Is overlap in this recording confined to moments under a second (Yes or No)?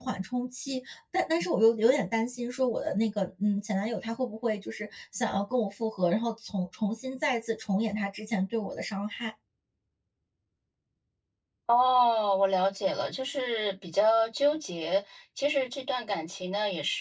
Yes